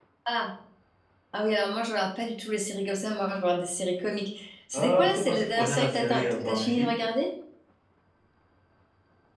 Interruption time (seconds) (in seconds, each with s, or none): 4.7 s